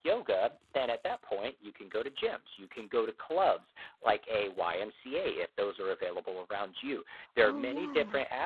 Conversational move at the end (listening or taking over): listening